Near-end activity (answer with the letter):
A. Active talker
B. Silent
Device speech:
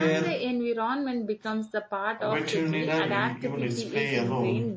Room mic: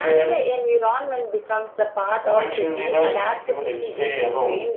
B